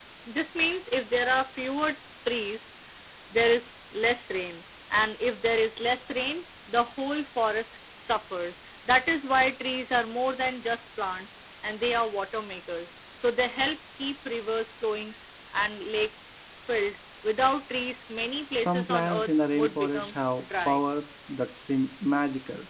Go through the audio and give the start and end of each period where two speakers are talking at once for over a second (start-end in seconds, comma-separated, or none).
18.4-20.8